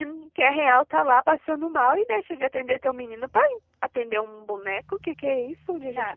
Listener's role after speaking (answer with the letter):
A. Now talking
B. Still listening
A